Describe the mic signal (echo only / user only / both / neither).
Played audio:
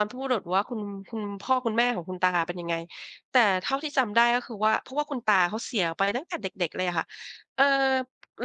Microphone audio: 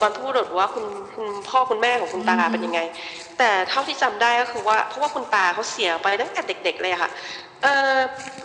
both